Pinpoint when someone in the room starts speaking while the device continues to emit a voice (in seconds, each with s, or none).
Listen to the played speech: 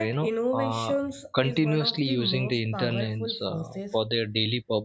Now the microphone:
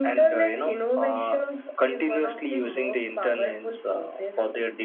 none